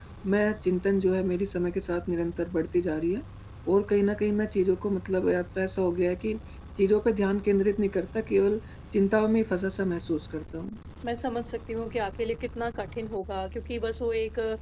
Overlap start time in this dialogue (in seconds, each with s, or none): none